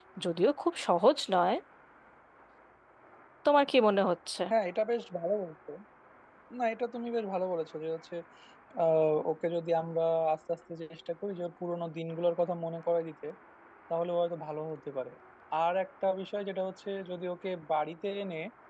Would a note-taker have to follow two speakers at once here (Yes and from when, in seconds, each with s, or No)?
No